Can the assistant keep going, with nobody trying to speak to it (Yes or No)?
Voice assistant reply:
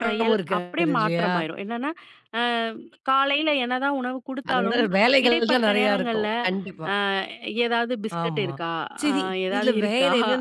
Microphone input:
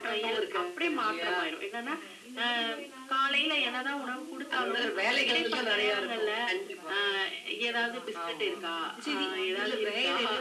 No